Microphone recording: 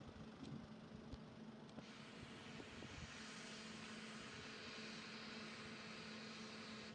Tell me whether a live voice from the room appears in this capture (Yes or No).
No